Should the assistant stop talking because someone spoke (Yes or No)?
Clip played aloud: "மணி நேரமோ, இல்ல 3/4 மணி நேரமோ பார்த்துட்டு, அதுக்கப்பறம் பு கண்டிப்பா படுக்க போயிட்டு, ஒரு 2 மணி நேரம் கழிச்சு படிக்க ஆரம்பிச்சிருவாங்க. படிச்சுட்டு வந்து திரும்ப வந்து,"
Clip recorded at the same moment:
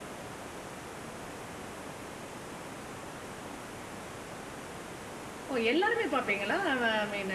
Yes